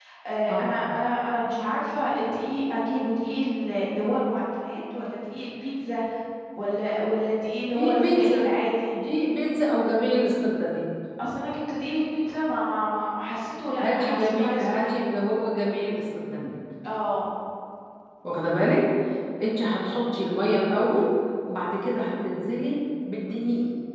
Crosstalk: present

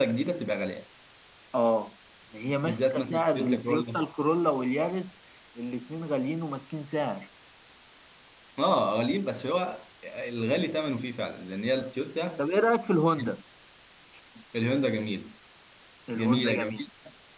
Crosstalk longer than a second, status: present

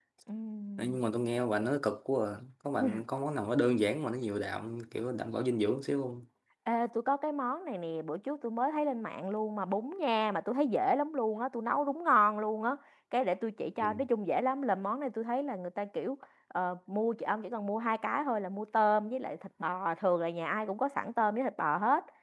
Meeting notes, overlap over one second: none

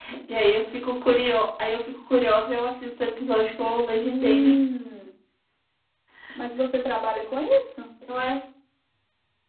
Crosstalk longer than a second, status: none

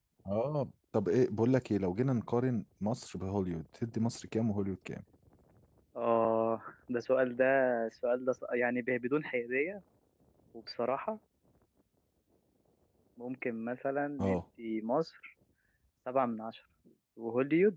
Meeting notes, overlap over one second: none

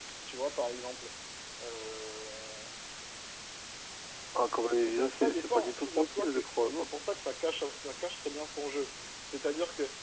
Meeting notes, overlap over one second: present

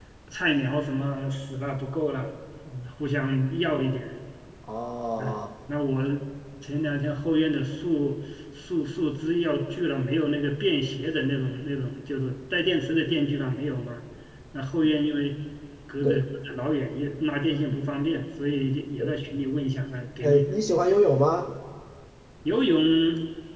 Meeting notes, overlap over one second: none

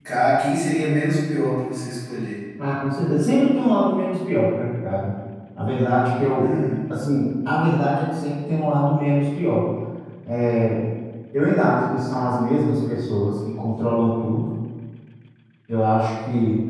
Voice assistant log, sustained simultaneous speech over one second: none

